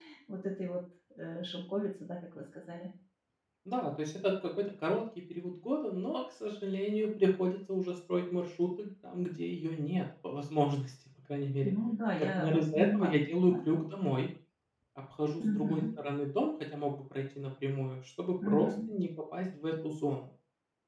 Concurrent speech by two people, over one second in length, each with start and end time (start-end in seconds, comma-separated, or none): 12.2-13.5